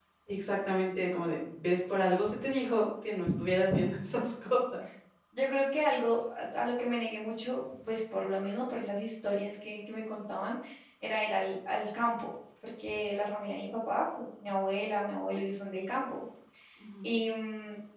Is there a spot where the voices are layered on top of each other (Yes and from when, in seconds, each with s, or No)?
No